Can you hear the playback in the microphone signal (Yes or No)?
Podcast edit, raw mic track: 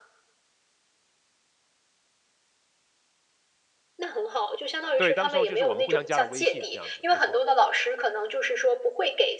Yes